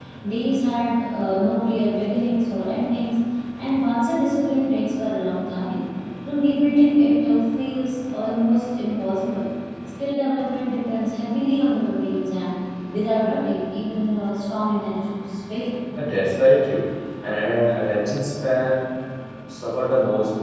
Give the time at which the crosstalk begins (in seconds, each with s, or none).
none